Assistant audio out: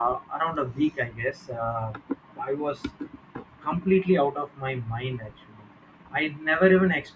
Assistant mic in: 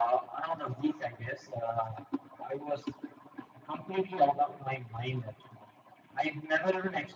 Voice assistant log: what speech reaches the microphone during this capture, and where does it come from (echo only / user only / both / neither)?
echo only